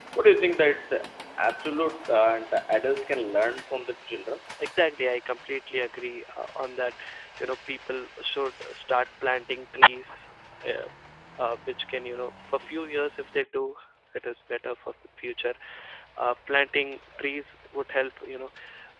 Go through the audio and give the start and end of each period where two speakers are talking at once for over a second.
none

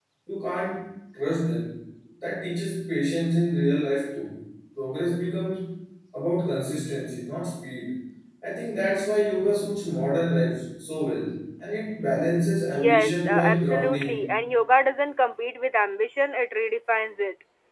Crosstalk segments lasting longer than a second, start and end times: 12.7-14.2

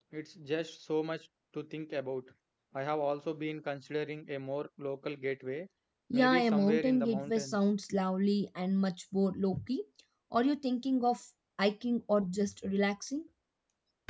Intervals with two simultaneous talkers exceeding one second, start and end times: 6.1-7.6

